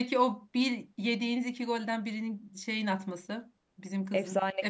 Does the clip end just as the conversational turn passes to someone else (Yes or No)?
Yes